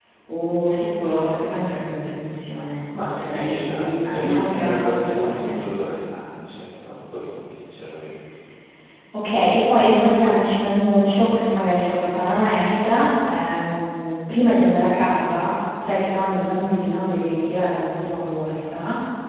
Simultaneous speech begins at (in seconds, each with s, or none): 2.9 s